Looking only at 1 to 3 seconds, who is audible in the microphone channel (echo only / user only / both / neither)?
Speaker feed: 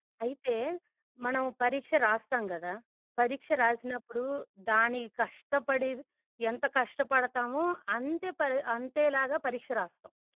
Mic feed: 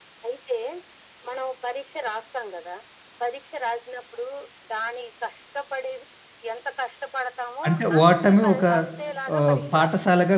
echo only